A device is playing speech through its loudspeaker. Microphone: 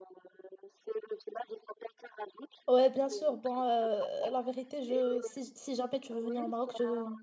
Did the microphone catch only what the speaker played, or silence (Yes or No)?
No